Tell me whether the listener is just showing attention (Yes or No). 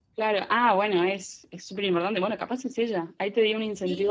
No